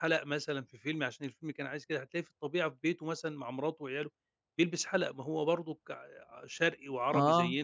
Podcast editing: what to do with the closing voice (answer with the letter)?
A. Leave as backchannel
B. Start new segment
A